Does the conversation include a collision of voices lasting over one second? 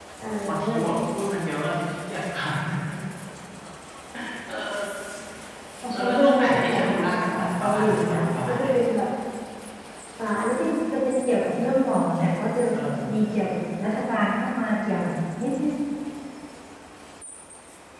Yes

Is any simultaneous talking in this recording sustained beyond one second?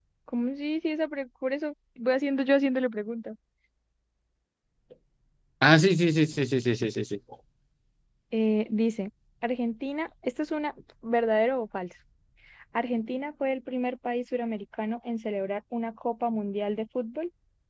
No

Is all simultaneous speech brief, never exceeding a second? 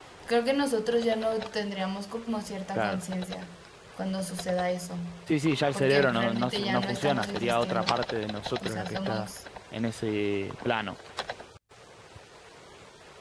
No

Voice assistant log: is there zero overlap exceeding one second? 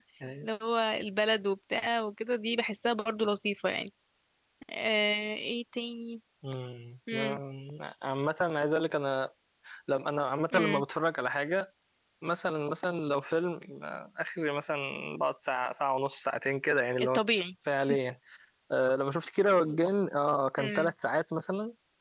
Yes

